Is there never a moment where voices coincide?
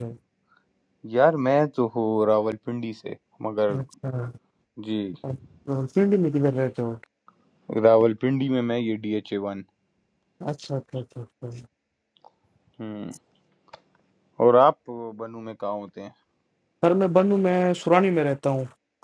Yes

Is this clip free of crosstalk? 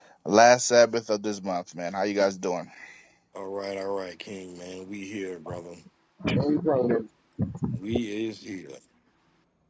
Yes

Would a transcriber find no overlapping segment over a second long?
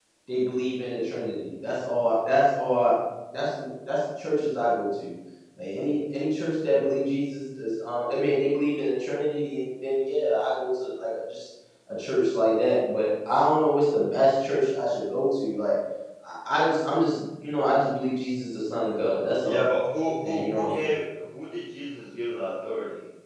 Yes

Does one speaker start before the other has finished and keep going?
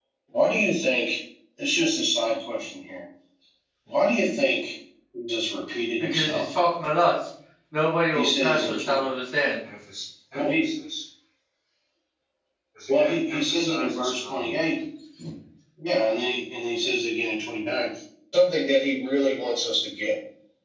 Yes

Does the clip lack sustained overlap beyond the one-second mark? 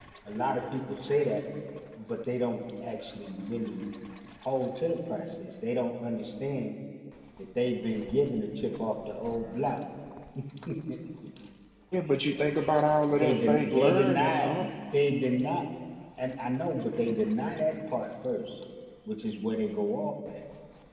No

